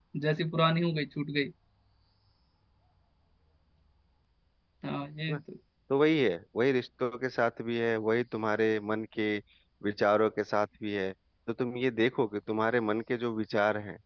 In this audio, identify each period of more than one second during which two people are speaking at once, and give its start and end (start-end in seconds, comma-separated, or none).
none